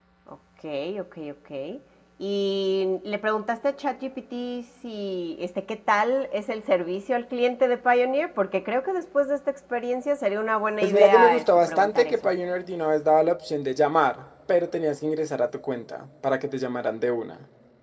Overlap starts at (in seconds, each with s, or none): 10.8 s